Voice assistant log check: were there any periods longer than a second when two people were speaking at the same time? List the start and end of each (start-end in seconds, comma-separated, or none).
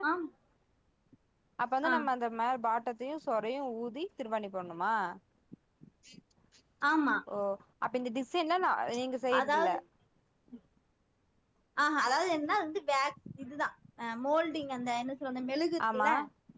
none